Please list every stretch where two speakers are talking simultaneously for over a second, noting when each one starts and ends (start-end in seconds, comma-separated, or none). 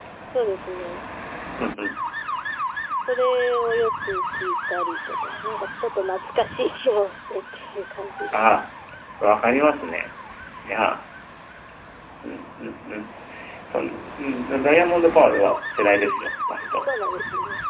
none